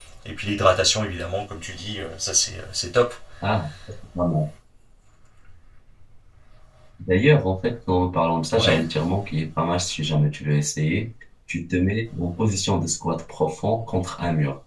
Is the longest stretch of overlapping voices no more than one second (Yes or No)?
Yes